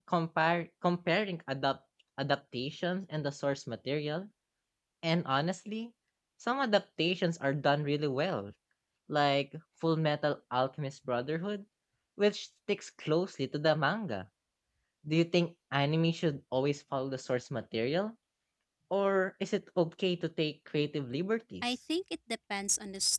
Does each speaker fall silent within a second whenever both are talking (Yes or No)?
Yes